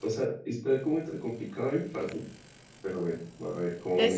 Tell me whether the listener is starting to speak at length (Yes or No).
Yes